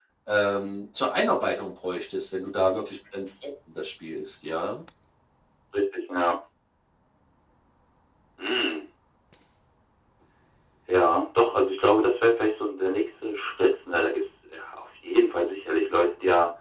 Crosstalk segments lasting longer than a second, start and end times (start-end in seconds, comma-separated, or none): none